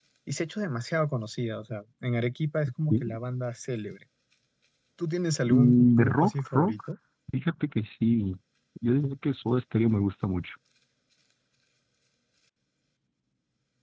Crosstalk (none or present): present